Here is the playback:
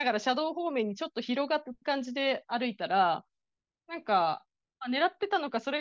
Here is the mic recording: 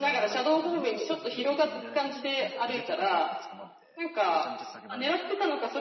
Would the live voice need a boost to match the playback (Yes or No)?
Yes